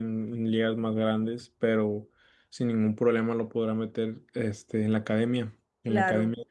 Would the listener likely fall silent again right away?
No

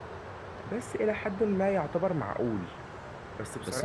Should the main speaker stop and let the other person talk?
Yes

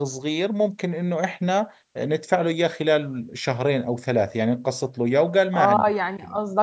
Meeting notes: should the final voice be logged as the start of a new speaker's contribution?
Yes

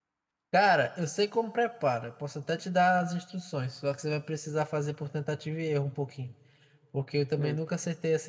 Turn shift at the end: No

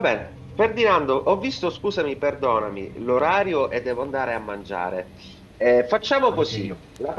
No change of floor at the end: Yes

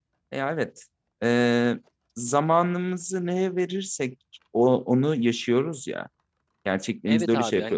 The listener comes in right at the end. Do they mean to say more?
Yes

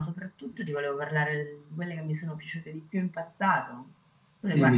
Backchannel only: No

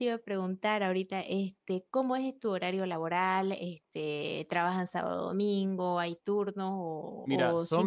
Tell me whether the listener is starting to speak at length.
Yes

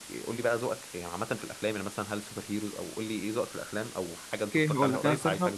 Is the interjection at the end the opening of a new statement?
Yes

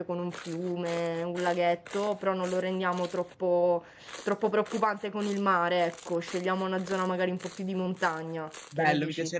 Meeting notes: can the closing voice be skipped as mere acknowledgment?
No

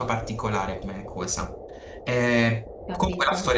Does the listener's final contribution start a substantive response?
No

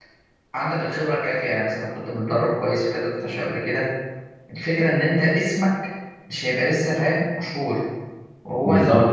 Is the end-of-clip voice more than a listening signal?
Yes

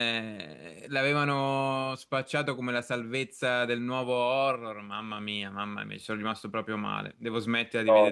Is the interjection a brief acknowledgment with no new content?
Yes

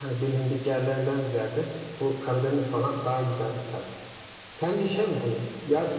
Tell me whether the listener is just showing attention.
Yes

